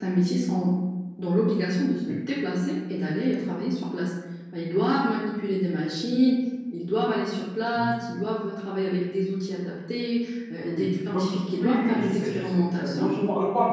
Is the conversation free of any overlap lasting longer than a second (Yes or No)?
No